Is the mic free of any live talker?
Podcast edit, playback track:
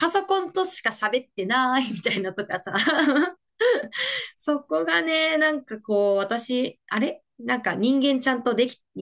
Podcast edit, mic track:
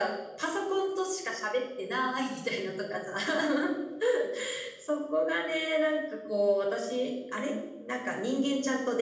Yes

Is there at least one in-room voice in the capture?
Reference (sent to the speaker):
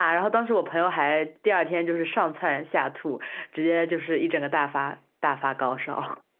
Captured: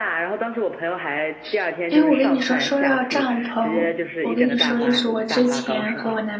Yes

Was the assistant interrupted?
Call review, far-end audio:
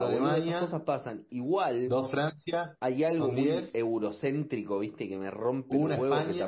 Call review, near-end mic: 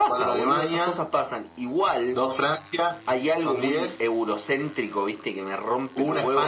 No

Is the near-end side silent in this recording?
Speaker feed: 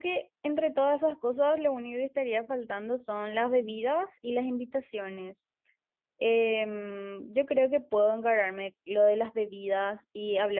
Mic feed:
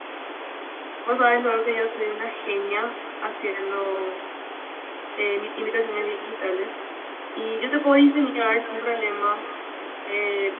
No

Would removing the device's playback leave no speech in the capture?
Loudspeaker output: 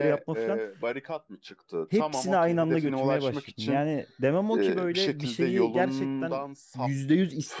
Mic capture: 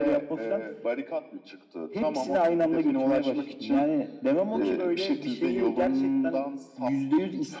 Yes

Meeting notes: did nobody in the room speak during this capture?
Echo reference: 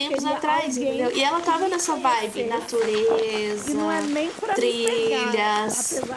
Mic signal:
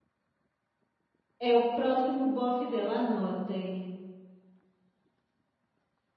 No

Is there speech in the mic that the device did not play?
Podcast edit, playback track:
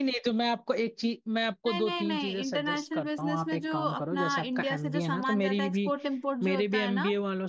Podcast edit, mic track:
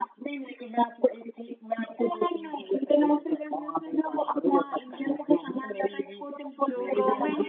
Yes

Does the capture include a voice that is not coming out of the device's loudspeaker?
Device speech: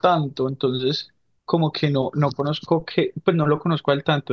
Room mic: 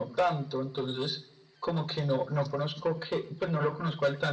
No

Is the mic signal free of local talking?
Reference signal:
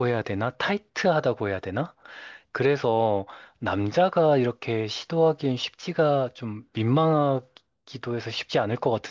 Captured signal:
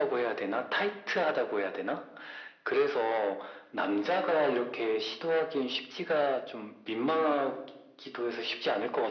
Yes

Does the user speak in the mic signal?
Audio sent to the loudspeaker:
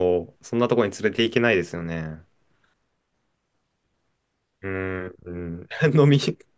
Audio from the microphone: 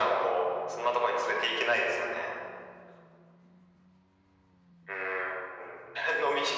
No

